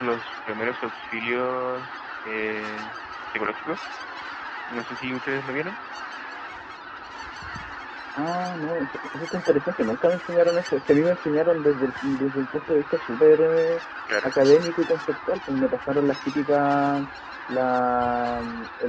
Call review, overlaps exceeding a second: none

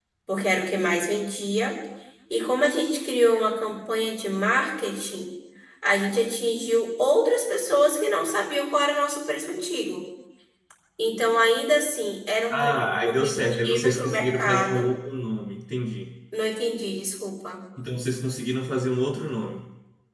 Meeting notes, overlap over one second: present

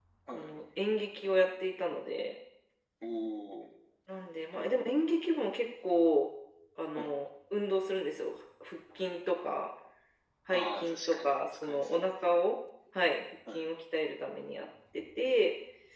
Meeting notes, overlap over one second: present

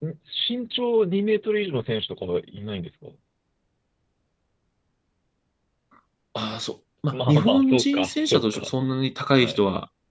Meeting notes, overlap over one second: present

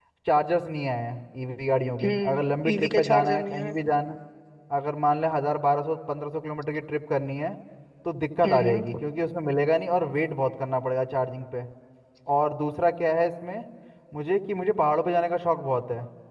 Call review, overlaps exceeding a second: present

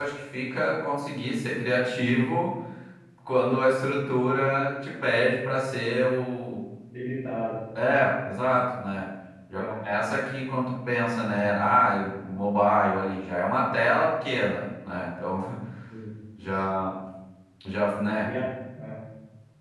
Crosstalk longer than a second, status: none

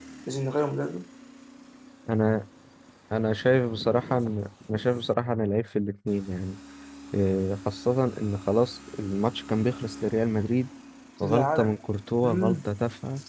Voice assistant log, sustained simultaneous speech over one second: none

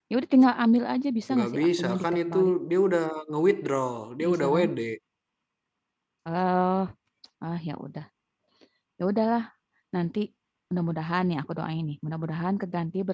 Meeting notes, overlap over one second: present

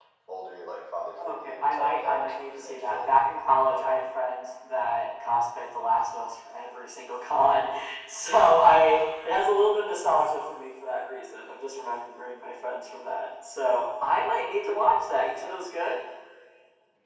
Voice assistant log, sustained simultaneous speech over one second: present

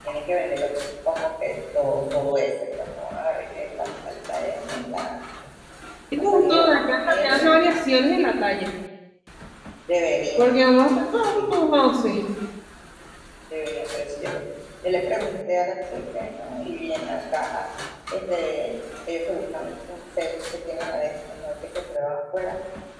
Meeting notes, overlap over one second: present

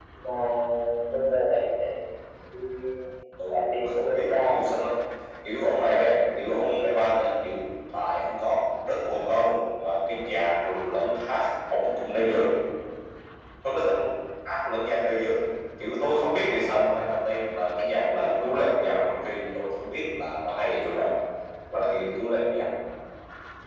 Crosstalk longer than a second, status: present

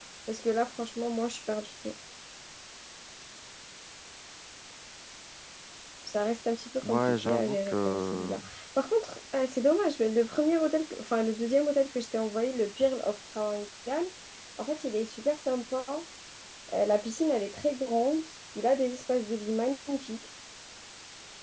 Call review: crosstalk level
present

